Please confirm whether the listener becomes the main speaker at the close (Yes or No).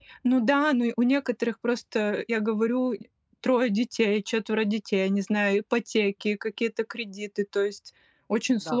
Yes